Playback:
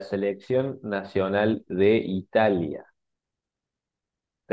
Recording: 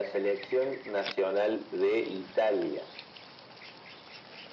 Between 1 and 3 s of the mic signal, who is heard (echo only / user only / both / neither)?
echo only